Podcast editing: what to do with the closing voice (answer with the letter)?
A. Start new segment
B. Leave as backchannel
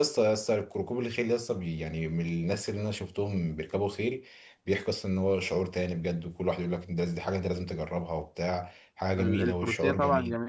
A